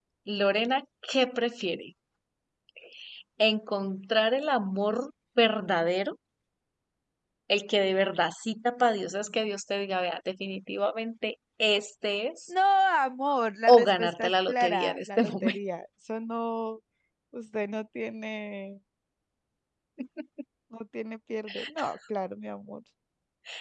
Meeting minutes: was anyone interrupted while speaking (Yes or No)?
Yes